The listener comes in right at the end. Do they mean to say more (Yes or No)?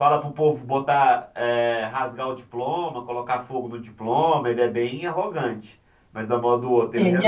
No